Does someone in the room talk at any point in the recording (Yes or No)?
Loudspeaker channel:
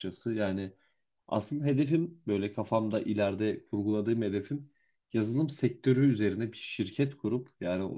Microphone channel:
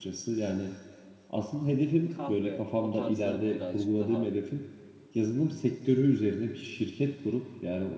Yes